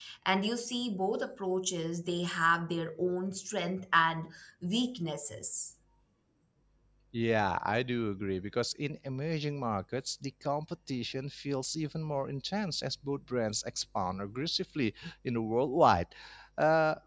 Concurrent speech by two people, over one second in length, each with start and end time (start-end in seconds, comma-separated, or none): none